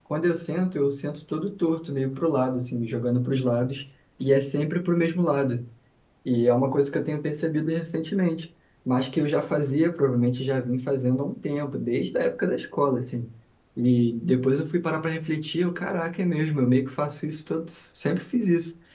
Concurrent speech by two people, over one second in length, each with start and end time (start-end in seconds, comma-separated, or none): none